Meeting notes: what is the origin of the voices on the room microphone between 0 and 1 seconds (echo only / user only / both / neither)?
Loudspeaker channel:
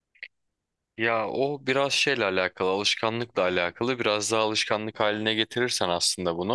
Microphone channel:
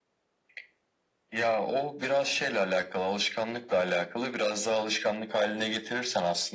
neither